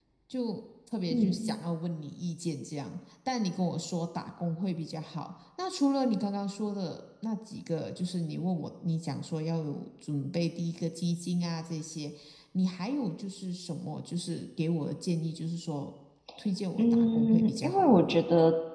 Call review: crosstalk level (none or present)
present